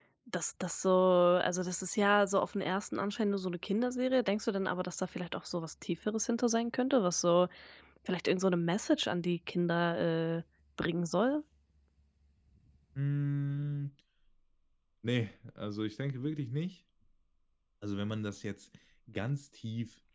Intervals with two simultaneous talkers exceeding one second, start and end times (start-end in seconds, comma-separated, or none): none